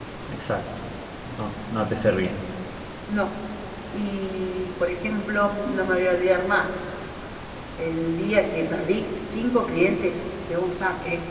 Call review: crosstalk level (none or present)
none